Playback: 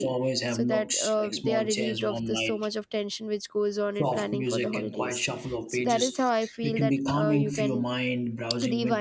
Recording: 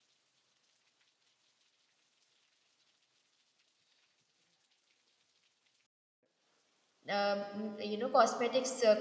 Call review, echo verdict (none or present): none